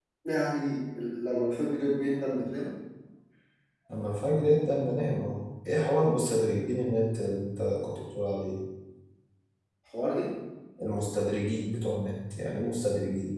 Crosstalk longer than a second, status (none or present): none